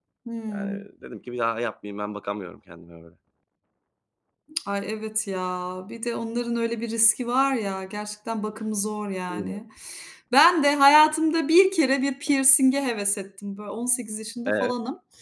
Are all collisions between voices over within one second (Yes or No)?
Yes